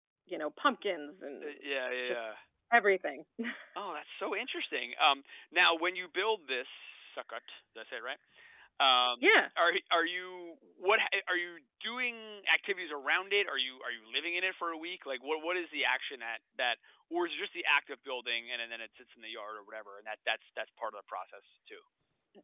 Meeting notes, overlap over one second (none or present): none